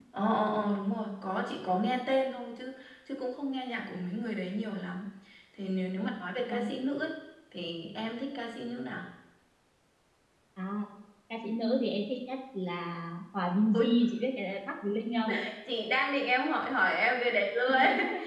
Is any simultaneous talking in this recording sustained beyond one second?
No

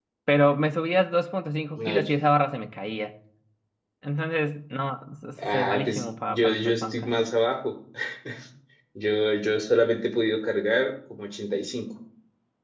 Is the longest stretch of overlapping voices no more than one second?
No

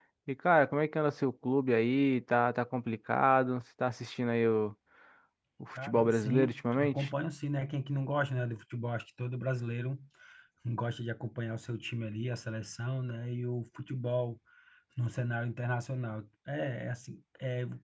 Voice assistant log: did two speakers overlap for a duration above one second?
Yes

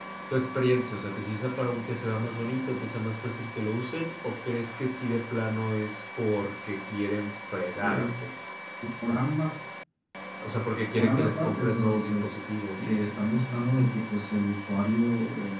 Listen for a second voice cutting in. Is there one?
Yes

